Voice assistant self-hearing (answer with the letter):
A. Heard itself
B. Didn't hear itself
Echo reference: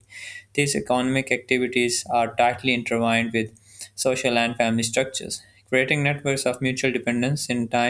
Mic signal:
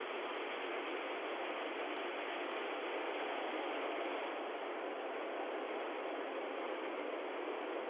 B